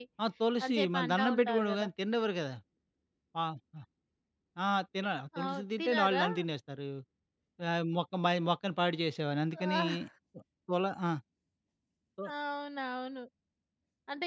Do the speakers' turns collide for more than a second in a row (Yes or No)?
Yes